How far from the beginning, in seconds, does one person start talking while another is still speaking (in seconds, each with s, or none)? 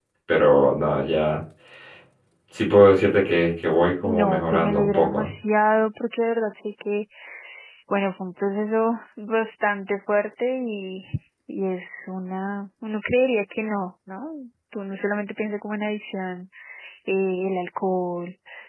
4.0 s